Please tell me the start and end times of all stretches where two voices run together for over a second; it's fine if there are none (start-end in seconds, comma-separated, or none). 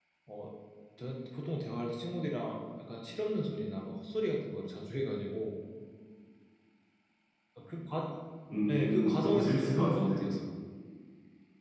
8.7-10.2